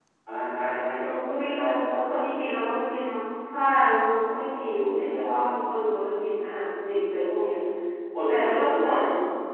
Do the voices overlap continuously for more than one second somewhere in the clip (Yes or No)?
Yes